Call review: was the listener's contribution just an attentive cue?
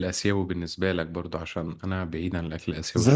No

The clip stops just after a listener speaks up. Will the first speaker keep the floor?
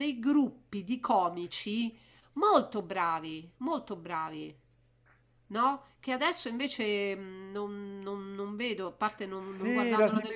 No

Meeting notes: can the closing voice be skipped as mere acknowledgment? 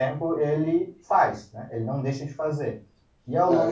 No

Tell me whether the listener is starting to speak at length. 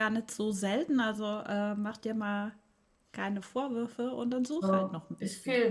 Yes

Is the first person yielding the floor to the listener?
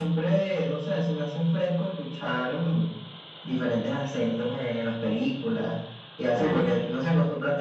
No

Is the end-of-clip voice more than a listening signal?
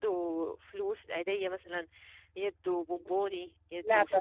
No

